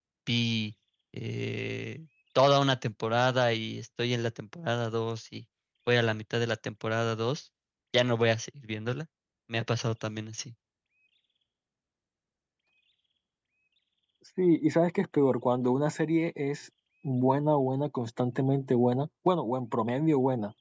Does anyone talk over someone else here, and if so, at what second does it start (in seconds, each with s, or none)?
none